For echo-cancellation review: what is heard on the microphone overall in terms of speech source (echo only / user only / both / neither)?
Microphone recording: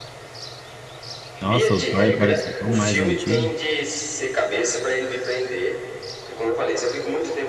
both